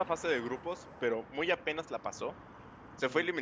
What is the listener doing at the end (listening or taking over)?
listening